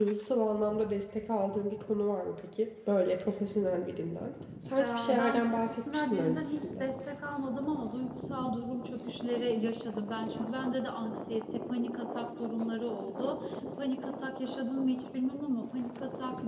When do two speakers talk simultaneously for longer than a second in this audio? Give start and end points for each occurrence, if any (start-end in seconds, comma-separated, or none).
4.8-6.9